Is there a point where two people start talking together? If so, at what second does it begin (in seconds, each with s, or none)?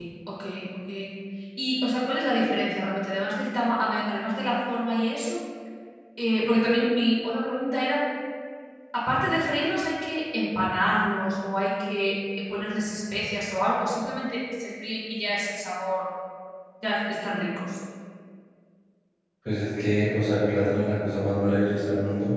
none